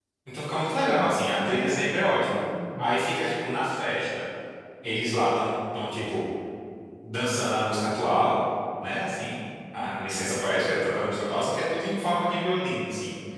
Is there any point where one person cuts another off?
Yes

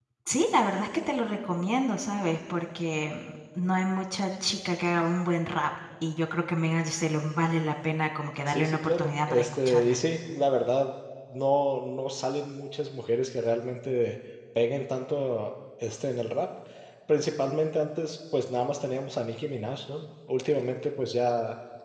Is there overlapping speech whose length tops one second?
Yes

